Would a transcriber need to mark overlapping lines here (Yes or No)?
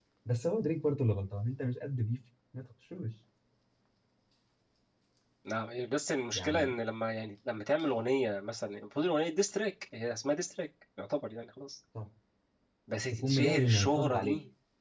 Yes